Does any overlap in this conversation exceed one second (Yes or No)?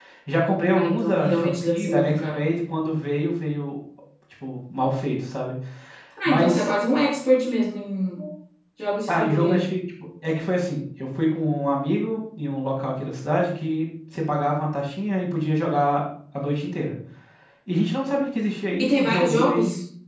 Yes